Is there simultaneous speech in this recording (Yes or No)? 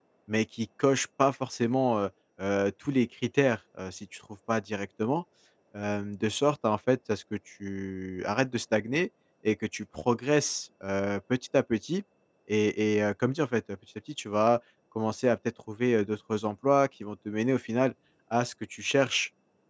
No